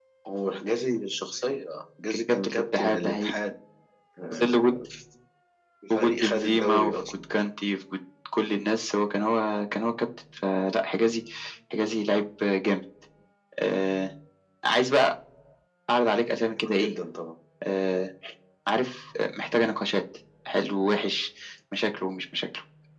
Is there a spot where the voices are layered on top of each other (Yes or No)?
Yes